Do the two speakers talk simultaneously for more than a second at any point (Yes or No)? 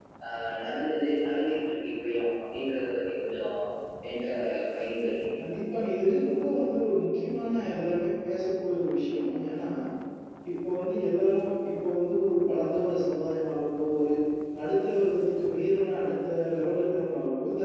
No